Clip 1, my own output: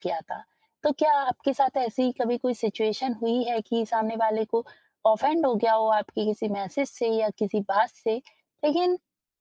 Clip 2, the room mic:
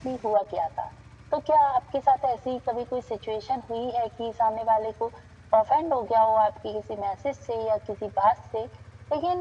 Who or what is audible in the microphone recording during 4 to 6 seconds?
echo only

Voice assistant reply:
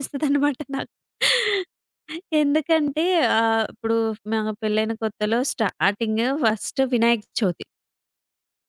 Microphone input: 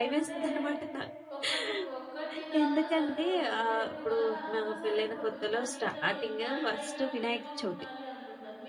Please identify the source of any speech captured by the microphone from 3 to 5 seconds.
both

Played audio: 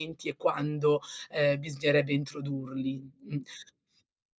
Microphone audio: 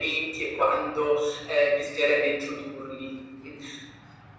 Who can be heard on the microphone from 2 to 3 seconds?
echo only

